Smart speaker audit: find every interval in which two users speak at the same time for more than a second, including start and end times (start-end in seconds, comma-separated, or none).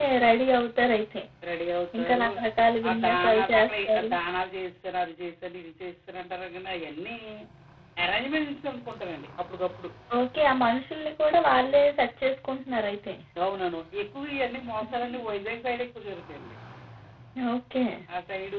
2.9-4.1